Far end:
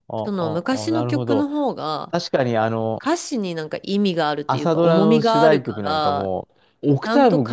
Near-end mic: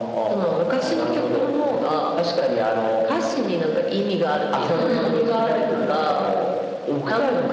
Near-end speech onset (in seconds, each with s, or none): 4.7 s